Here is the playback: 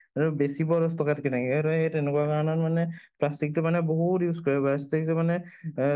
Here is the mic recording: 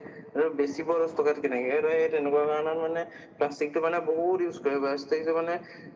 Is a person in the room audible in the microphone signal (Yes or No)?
No